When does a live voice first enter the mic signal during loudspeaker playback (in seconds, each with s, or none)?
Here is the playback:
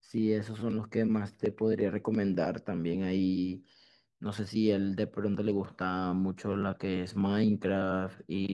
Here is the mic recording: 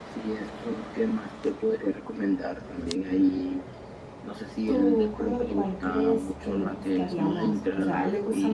4.6 s